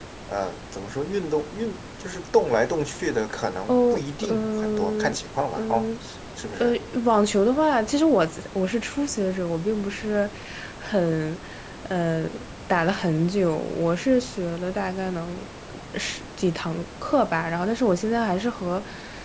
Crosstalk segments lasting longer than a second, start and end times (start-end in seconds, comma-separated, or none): 3.7-5.1